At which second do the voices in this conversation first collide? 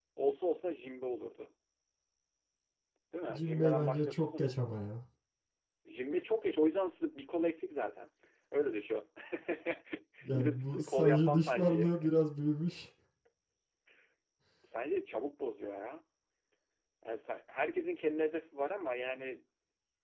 3.3 s

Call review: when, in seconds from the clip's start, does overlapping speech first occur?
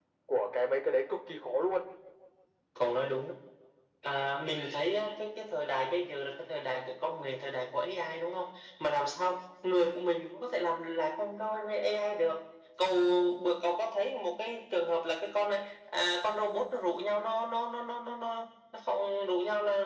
none

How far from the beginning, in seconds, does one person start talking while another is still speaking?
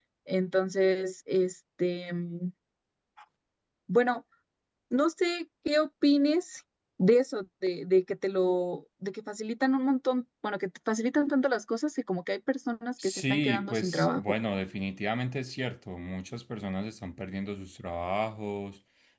13.0 s

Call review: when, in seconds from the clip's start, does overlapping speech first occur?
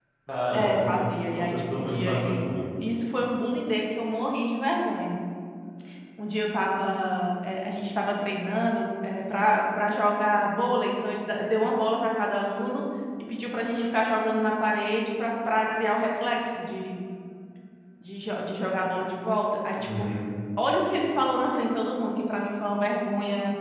0.5 s

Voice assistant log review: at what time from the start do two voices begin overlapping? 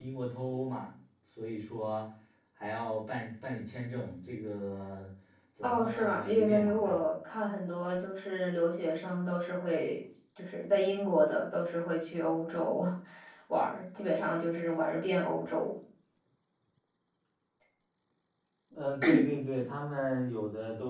5.6 s

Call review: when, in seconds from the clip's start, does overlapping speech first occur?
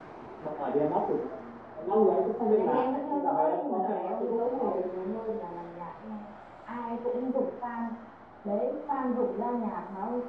2.5 s

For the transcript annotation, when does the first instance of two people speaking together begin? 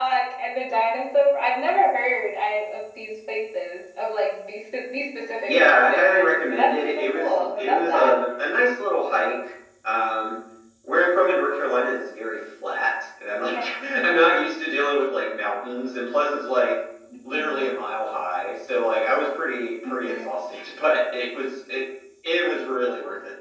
5.4 s

